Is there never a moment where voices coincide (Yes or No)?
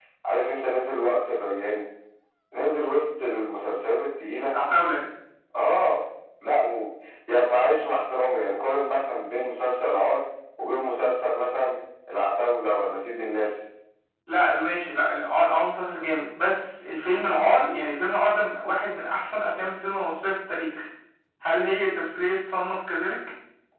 Yes